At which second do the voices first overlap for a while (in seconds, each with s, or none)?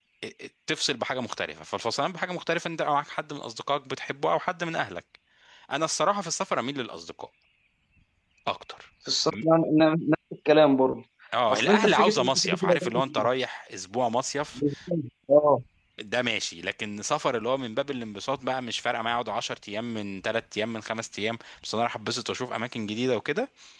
11.5 s